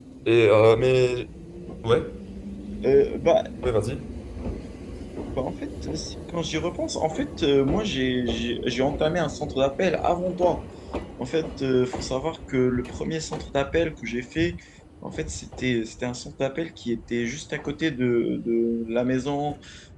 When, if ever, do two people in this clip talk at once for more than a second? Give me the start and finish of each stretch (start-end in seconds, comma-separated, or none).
none